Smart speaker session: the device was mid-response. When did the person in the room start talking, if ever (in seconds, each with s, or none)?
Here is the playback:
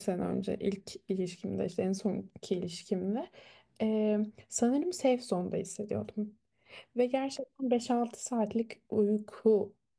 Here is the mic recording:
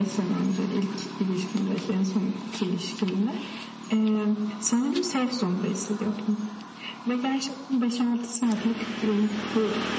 none